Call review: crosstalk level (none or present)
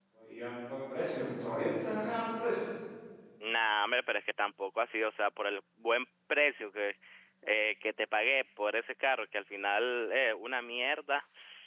none